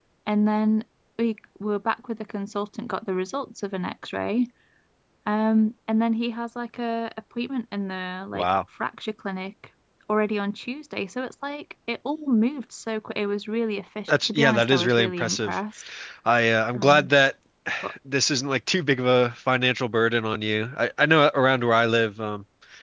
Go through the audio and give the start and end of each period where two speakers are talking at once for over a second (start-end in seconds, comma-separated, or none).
14.1-15.6